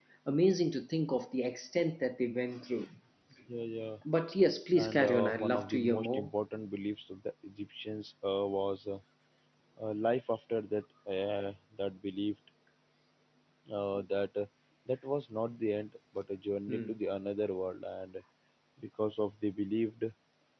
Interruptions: present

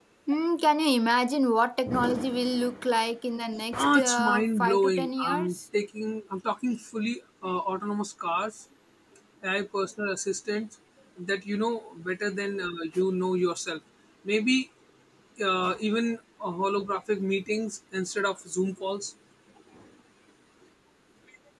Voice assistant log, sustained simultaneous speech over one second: present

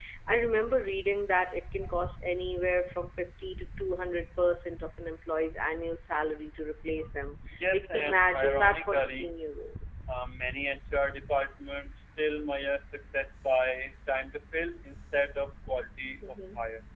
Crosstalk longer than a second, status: present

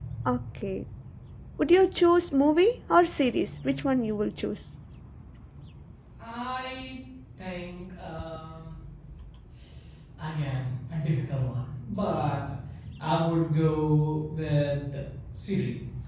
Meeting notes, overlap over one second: none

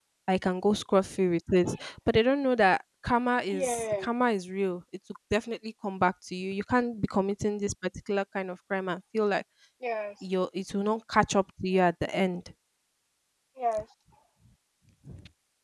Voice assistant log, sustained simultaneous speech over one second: none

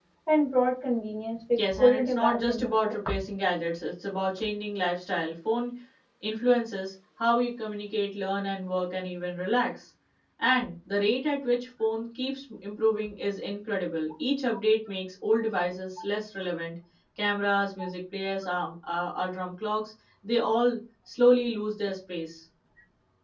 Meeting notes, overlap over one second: present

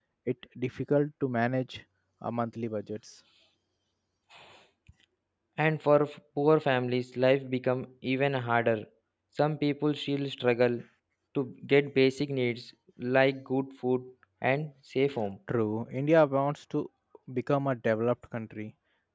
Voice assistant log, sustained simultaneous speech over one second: none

